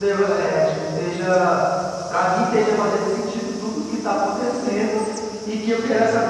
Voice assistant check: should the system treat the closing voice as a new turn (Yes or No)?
No